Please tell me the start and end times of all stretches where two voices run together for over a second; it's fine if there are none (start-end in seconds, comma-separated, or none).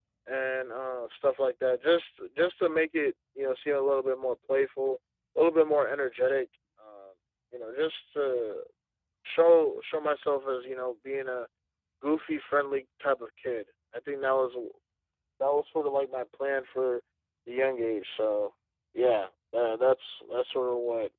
none